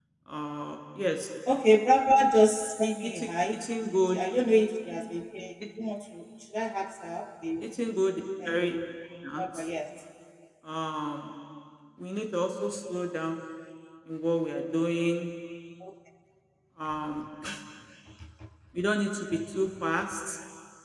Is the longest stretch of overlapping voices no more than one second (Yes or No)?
Yes